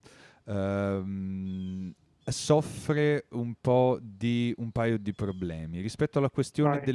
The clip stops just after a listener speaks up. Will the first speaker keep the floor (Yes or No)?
Yes